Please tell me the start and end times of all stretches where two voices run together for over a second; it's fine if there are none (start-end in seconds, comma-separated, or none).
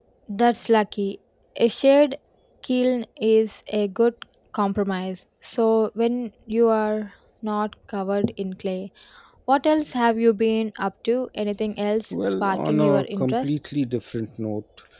12.1-13.5